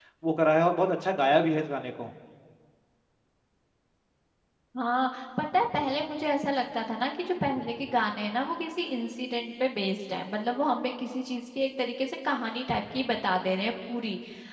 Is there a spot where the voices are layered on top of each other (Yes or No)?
No